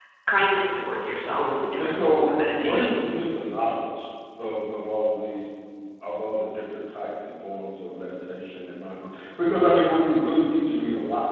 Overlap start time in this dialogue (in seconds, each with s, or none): 1.3 s